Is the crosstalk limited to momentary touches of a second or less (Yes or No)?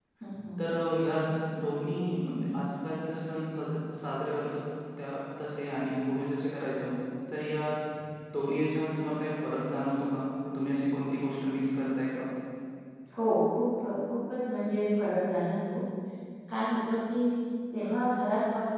Yes